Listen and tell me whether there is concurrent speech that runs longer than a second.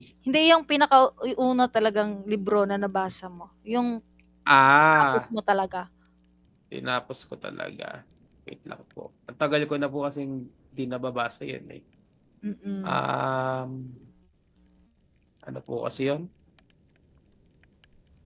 No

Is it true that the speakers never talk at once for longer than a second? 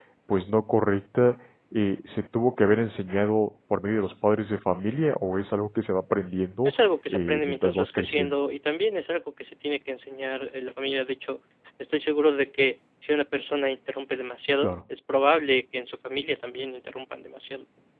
No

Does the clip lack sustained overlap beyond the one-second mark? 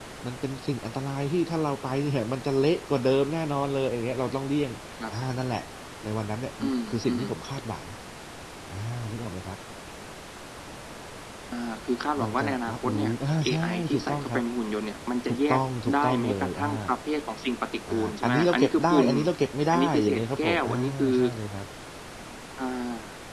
No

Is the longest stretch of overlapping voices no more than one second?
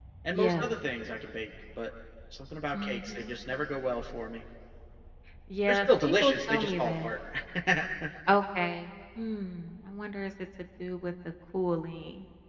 No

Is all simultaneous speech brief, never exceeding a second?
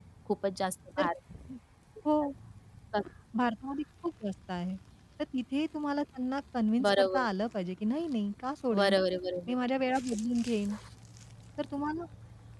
Yes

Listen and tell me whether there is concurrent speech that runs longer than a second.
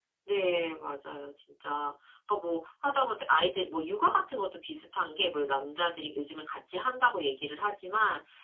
No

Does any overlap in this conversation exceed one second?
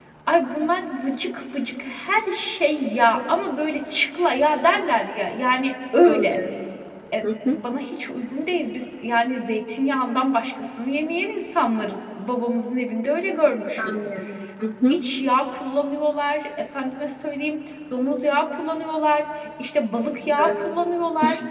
No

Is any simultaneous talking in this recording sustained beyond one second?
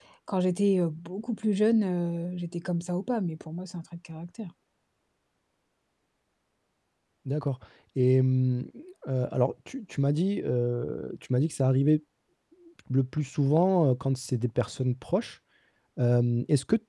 No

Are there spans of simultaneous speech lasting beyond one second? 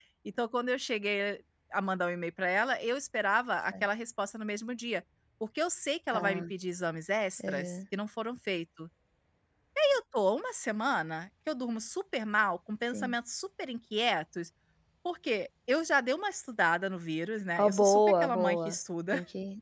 Yes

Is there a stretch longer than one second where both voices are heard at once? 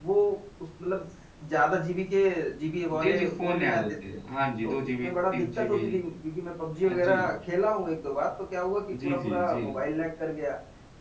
Yes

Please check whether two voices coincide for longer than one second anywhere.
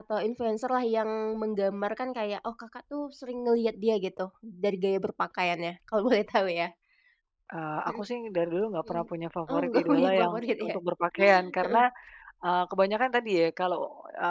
Yes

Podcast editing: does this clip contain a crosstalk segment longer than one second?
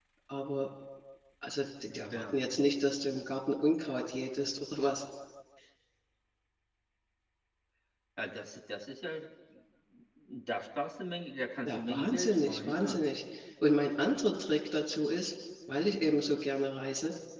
Yes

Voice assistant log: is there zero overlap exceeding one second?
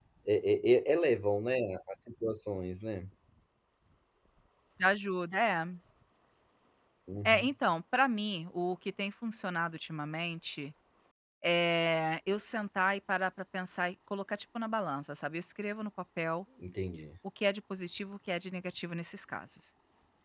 Yes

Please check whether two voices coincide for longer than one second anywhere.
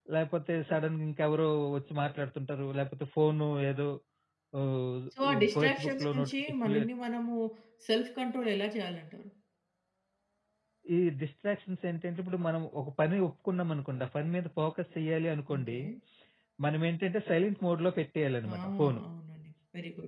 Yes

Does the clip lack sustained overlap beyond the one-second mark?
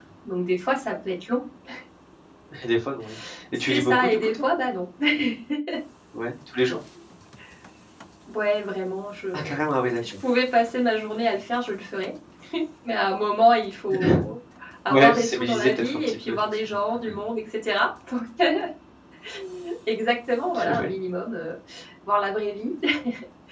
No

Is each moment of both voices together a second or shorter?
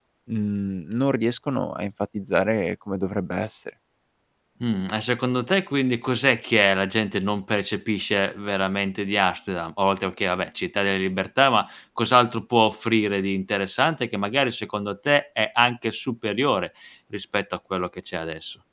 Yes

